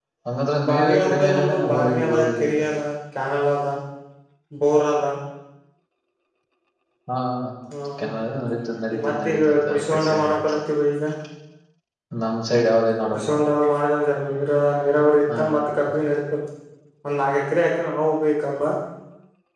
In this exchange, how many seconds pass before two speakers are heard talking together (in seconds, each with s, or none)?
0.7 s